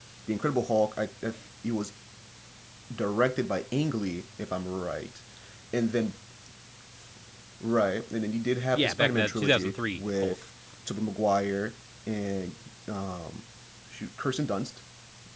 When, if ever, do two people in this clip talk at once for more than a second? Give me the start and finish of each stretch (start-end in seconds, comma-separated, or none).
8.8-10.4